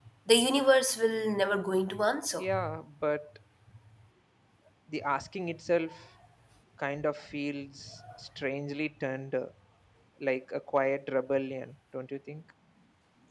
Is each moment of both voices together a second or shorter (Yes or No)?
Yes